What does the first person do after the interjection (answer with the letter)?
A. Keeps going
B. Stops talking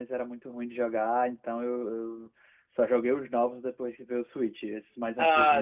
B